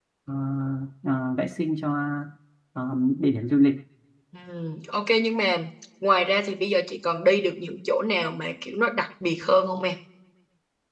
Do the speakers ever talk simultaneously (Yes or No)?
No